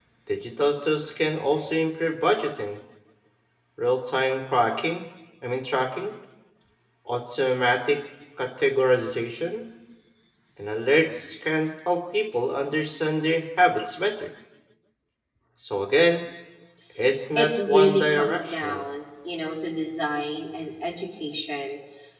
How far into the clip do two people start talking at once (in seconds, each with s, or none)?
17.4 s